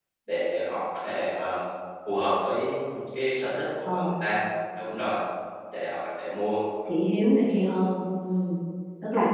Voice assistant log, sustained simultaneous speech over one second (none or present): none